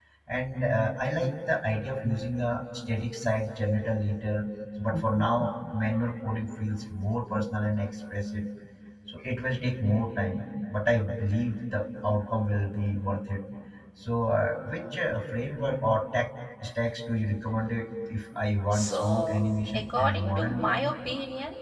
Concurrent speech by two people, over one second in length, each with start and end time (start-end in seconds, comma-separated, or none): 18.7-20.7